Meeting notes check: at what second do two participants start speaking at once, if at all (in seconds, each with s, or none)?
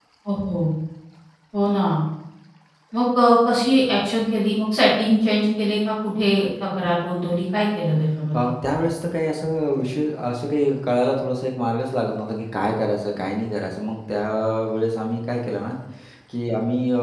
none